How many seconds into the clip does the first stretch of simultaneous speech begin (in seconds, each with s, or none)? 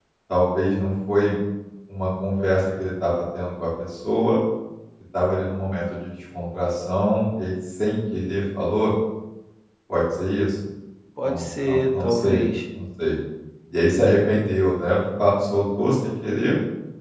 11.2 s